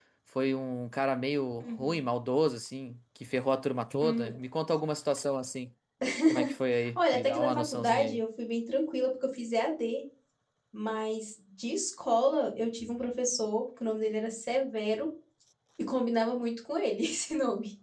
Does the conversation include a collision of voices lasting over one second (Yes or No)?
Yes